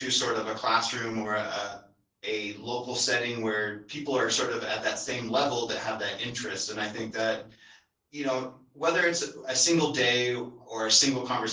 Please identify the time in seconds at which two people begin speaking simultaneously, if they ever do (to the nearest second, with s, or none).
none